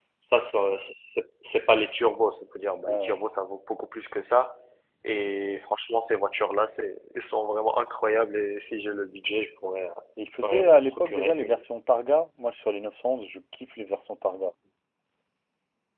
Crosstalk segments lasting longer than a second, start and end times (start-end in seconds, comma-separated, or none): 10.4-11.6